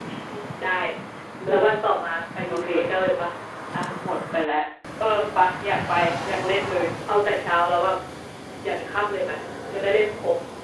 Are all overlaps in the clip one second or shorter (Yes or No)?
Yes